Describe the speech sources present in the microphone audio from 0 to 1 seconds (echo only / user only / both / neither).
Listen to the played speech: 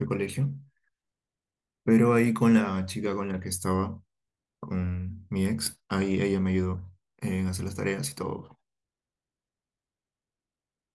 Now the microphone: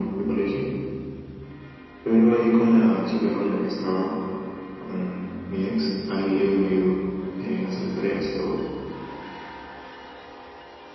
echo only